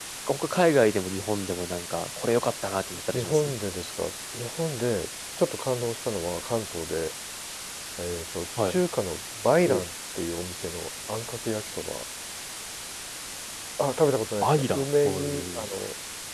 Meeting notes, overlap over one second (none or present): present